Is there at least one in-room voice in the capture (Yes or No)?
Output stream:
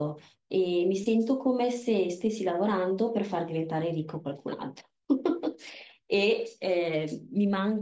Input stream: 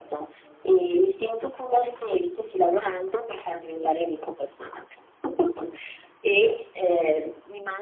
No